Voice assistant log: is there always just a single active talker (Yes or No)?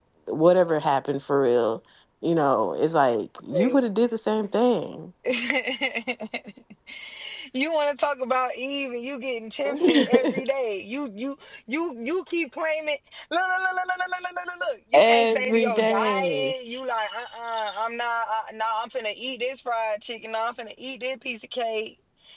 No